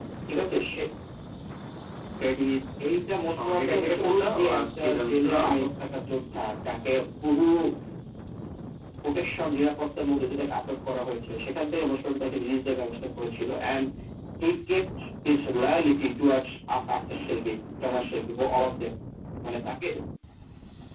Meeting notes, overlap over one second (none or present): present